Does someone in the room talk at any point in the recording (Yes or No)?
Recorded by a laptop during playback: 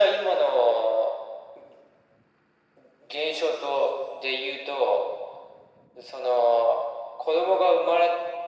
No